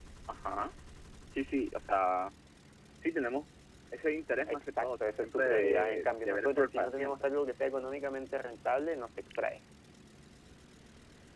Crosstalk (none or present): present